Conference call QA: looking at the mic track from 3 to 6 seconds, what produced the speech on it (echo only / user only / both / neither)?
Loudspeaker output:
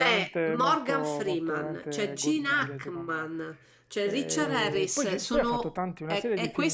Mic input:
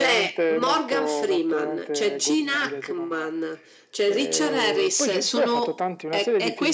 echo only